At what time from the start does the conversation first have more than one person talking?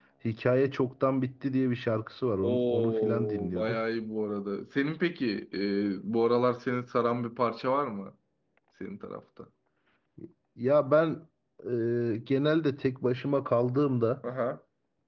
2.4 s

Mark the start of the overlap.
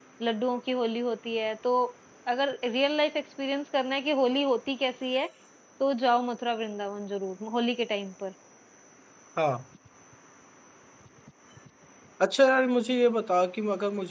none

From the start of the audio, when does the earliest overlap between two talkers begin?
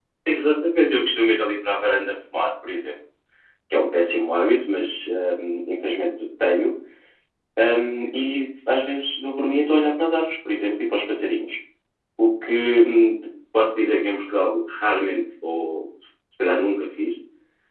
none

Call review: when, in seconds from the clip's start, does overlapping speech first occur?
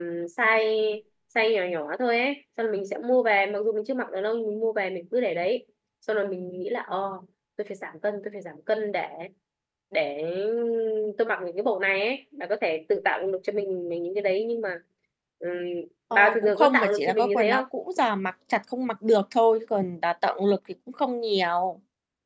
16.1 s

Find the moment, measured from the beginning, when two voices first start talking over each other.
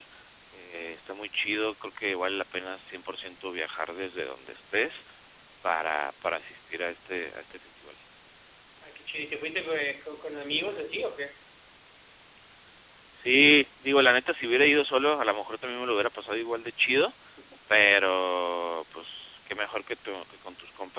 none

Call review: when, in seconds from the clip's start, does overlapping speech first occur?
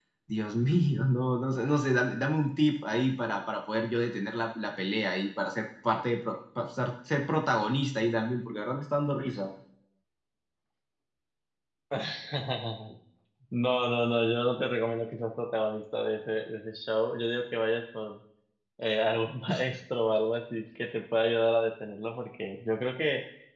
none

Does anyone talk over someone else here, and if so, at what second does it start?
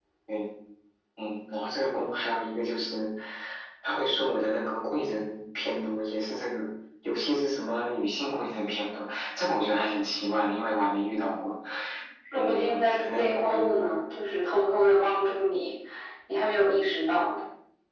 12.3 s

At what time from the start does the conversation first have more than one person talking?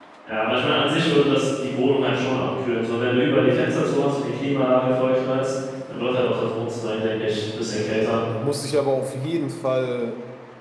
none

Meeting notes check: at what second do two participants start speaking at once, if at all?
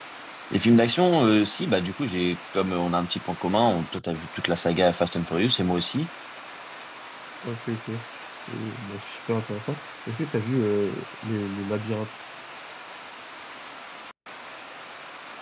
none

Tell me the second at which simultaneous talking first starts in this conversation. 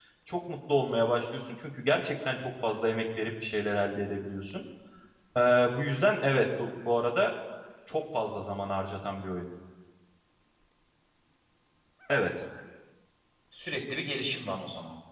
none

